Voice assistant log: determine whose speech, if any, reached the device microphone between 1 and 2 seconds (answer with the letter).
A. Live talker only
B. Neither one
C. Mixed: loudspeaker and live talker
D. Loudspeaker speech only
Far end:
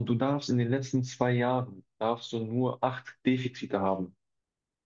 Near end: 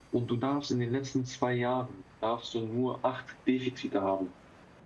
D